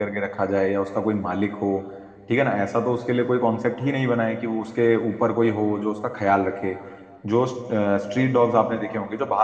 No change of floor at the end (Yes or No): Yes